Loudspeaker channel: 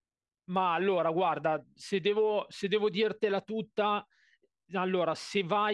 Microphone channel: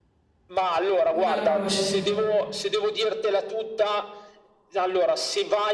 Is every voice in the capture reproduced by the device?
No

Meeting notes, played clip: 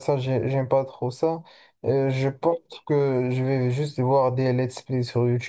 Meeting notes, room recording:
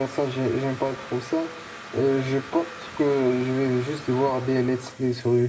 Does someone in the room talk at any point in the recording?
No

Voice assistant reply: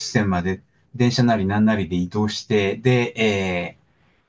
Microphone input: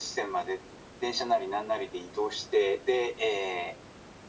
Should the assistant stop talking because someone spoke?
No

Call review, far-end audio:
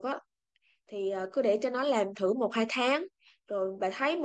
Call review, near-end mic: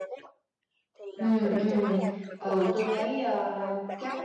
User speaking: Yes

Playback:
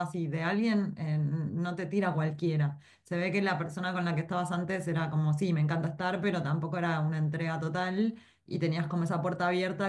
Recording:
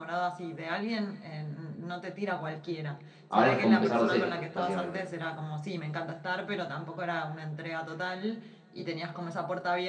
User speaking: Yes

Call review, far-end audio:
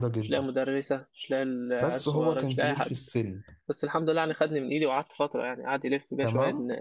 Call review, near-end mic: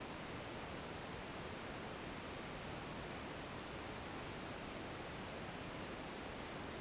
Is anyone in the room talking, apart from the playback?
No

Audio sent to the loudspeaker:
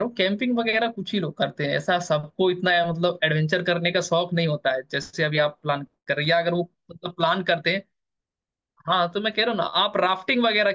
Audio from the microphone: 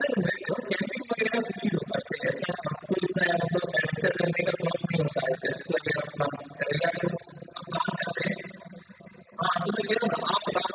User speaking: No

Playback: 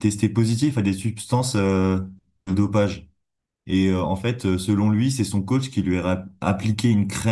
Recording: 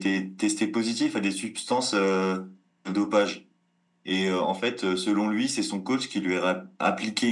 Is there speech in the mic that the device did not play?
No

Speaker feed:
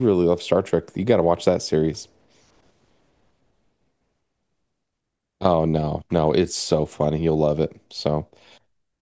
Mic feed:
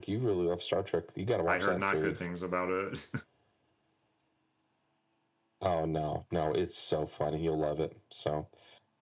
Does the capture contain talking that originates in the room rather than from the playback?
Yes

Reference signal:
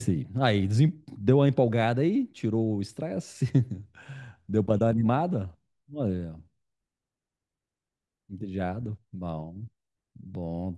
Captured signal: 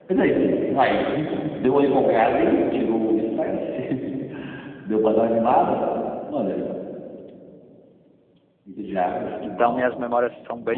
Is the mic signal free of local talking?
No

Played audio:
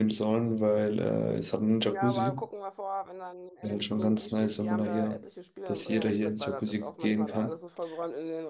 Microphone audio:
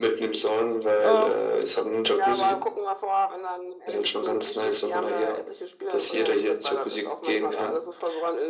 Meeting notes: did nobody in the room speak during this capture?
No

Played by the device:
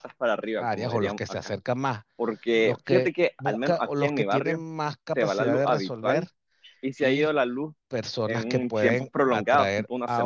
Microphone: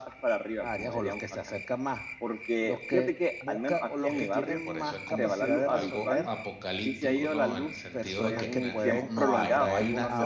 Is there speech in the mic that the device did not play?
Yes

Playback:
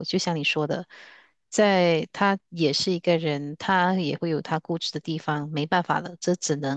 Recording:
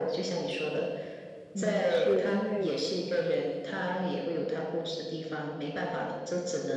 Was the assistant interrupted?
Yes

